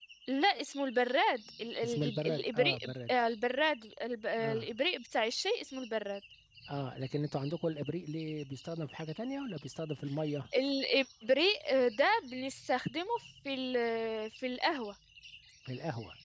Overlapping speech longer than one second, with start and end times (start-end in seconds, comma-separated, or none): 1.8-3.2